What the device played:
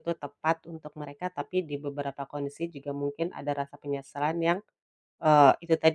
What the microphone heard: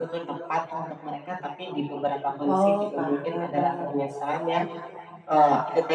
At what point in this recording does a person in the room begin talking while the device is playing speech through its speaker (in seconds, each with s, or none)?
2.4 s